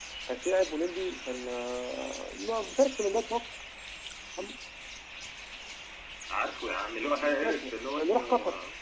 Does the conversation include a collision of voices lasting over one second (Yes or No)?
Yes